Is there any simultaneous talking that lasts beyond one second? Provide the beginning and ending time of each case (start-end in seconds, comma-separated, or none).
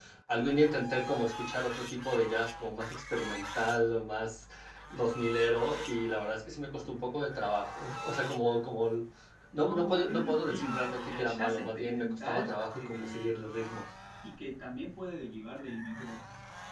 9.5-13.3